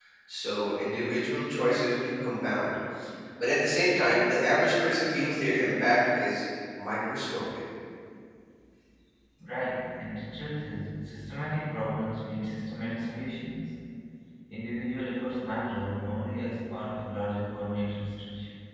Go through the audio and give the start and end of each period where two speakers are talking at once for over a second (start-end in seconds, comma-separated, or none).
none